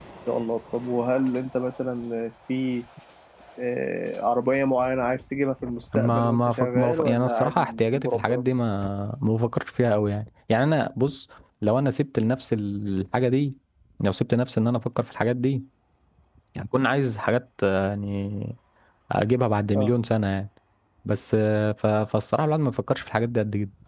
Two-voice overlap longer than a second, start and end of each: 6.0-8.4

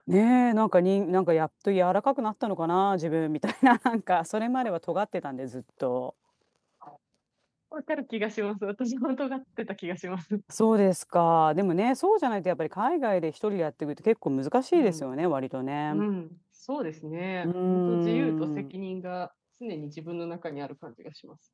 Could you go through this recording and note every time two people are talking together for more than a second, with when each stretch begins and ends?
17.4-18.6

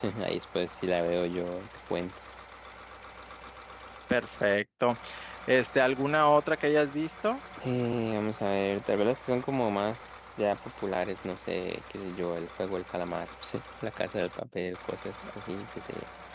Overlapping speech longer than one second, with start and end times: none

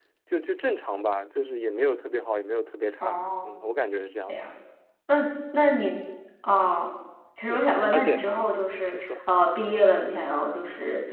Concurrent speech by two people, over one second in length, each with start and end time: 7.4-9.0

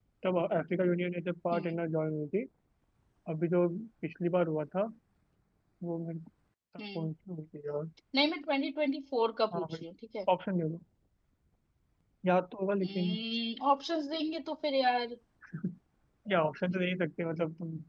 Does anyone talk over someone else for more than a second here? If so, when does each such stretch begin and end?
none

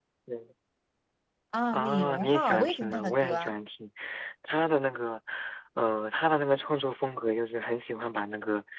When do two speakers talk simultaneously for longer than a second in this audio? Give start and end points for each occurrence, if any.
1.7-3.5

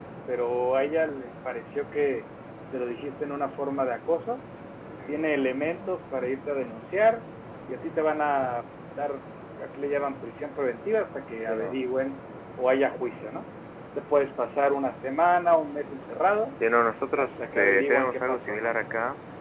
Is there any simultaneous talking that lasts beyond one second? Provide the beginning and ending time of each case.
17.2-18.8

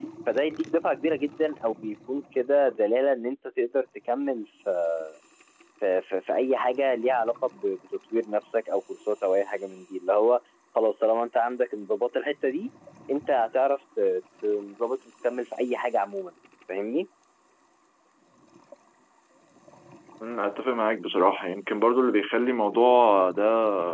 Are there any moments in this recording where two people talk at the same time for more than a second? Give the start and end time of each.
none

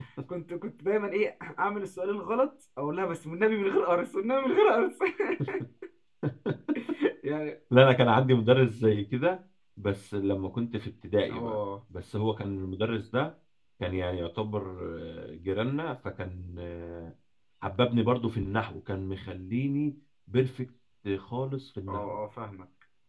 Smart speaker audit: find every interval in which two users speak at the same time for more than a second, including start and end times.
none

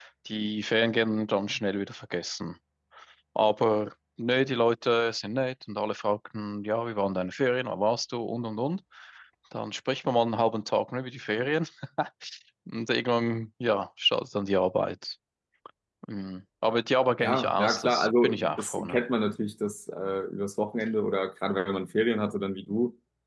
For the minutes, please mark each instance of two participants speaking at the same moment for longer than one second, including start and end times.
17.2-19.0

